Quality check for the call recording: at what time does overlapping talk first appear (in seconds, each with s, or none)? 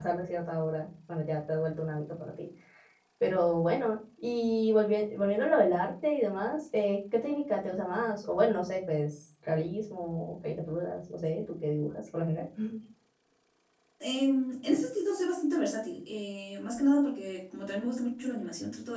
none